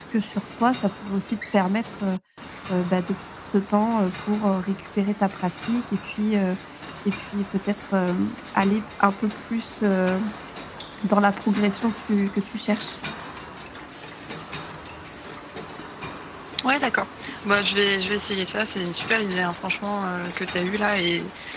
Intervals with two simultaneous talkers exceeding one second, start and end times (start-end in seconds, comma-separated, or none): none